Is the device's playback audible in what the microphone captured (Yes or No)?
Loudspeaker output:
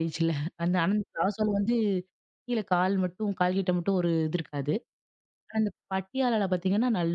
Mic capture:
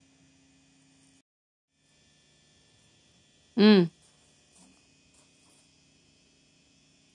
No